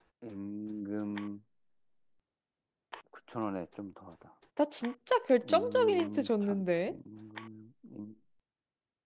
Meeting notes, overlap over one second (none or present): present